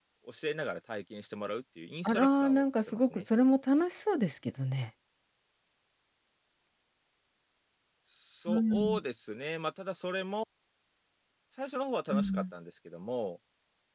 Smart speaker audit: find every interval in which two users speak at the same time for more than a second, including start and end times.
2.0-3.2

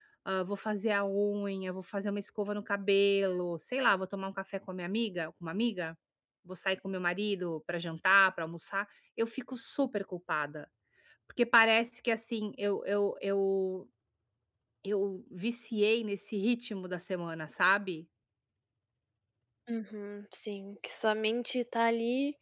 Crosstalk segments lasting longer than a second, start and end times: none

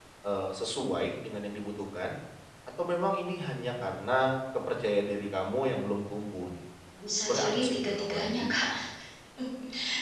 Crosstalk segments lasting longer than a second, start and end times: 7.2-8.4

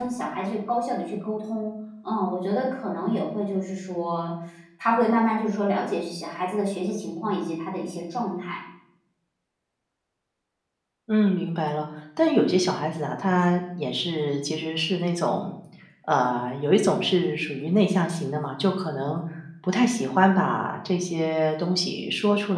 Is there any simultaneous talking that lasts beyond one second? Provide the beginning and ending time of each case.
none

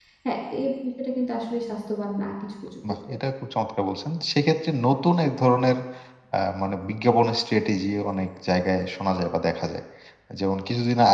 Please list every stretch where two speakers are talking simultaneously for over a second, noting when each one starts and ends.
none

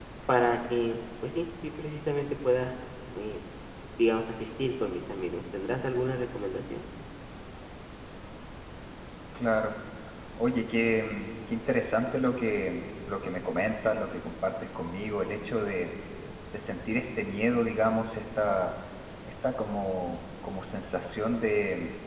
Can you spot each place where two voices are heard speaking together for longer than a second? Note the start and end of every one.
none

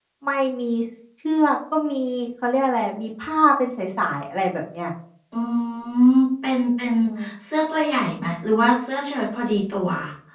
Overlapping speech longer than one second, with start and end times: none

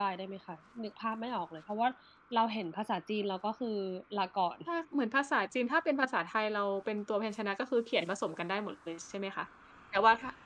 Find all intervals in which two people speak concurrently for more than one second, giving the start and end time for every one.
none

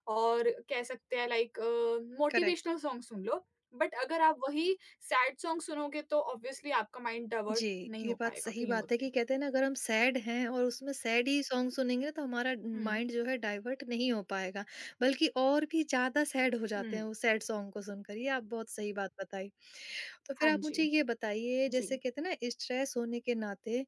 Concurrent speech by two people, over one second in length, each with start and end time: 7.5-9.0

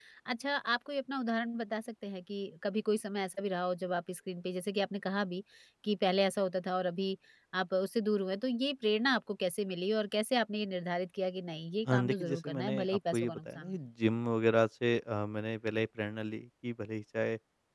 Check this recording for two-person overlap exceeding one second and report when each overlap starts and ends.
11.8-13.8

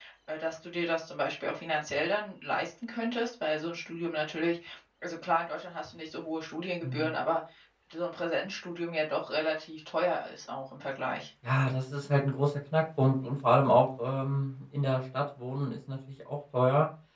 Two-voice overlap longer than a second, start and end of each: none

